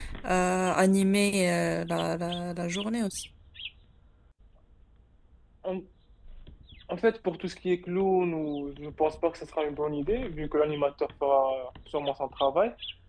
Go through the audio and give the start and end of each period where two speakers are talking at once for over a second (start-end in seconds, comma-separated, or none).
none